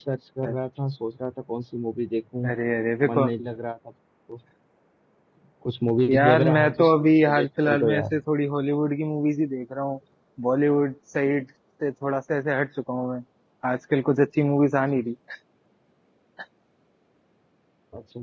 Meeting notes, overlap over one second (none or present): present